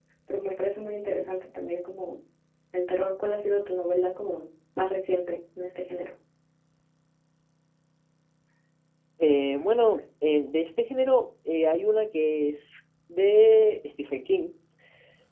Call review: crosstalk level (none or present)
none